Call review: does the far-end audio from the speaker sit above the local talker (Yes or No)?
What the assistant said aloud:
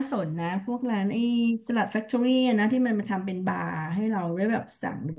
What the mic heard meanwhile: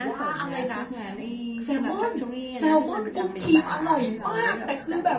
No